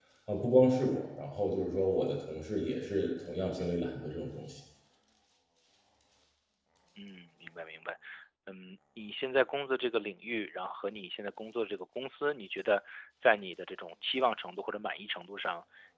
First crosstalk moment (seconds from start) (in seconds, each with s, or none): none